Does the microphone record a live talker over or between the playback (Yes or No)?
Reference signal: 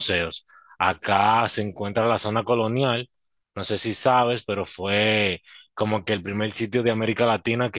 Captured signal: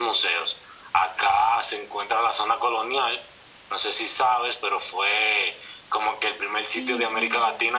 Yes